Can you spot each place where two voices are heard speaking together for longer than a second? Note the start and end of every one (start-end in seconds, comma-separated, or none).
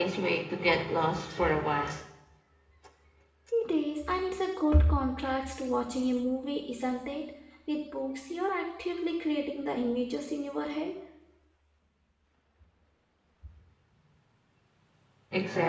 none